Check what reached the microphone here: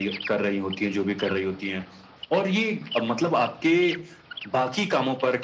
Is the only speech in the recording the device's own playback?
Yes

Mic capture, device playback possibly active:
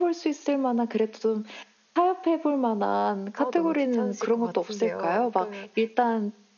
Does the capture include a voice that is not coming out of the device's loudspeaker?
Yes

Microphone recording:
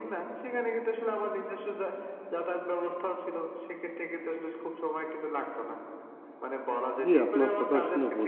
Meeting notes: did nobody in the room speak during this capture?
No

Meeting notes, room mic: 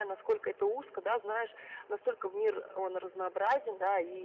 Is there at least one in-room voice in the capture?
No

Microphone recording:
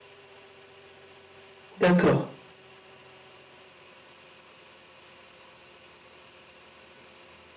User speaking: Yes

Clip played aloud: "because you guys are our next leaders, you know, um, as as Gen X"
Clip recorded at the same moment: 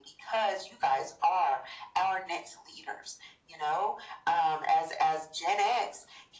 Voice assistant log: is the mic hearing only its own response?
Yes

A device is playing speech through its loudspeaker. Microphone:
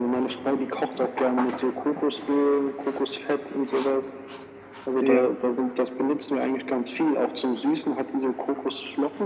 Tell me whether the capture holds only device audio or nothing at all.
No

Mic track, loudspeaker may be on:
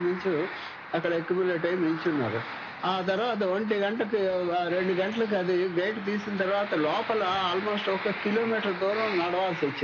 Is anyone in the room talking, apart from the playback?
No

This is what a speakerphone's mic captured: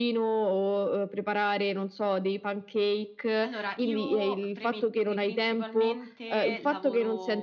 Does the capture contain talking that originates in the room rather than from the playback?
Yes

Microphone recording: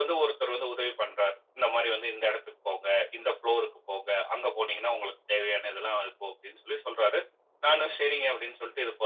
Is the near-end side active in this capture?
No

